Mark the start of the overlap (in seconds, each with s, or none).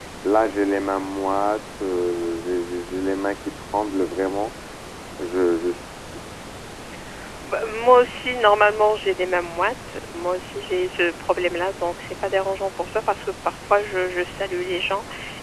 none